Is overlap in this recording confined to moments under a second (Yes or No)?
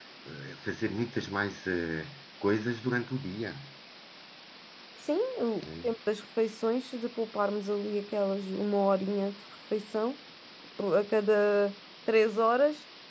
Yes